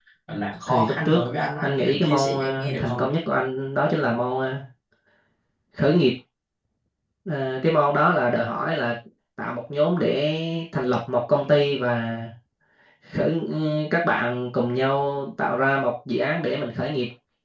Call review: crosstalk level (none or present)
present